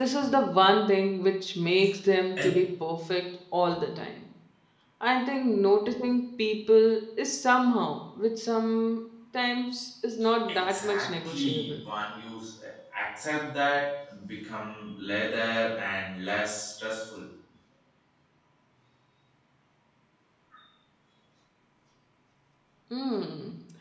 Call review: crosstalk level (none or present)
present